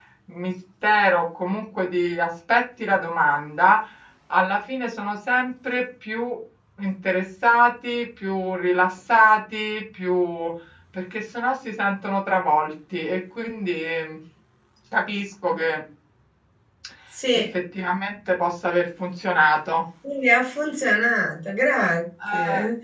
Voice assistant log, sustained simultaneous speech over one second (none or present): none